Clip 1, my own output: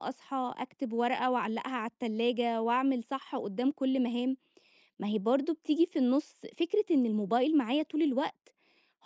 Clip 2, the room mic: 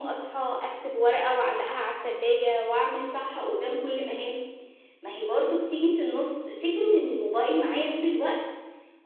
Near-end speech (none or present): none